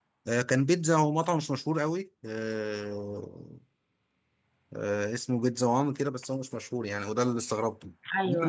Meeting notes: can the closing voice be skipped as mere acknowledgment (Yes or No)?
Yes